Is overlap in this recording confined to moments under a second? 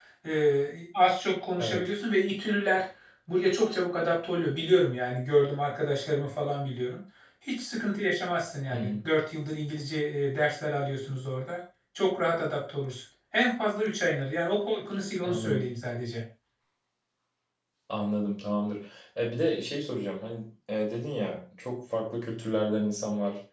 Yes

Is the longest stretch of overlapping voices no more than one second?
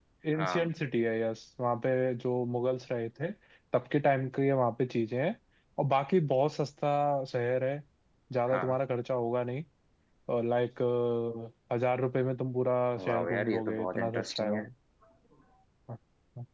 No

